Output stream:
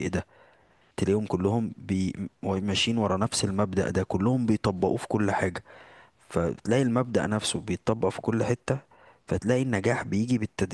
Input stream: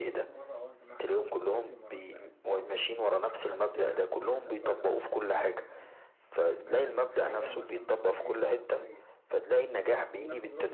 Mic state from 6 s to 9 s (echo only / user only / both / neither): both